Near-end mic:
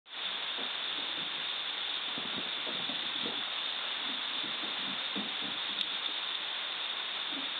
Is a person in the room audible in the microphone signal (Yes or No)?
No